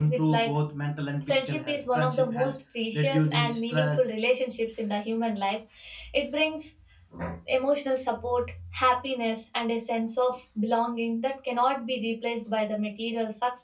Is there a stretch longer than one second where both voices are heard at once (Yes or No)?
Yes